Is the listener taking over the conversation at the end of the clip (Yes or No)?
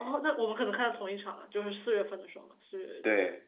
Yes